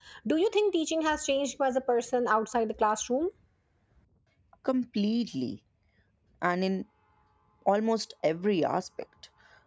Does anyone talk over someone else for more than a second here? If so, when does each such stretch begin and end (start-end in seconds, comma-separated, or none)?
none